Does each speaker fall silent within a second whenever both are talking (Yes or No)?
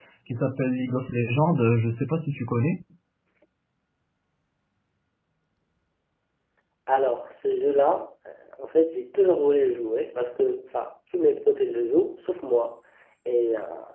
Yes